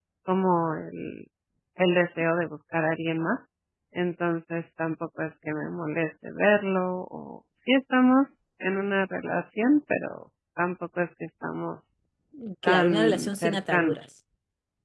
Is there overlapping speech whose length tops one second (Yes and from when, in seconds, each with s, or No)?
Yes, from 12.7 s